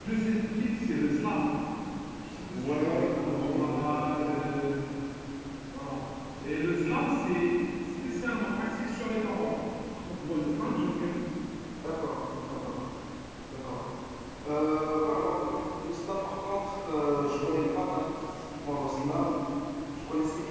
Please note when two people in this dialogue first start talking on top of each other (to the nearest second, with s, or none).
3 s